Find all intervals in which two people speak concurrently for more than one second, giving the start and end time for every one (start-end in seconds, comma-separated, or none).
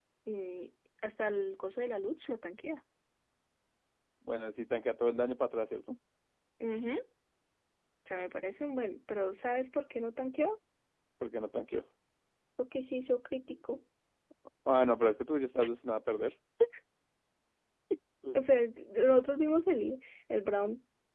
none